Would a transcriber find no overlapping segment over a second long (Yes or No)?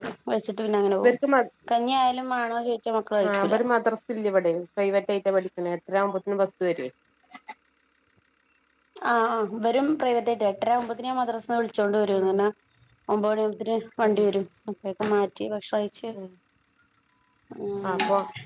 Yes